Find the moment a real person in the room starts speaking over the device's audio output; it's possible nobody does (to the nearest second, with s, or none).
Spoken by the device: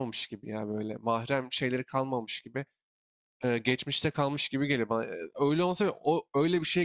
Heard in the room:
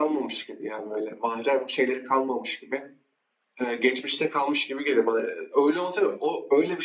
none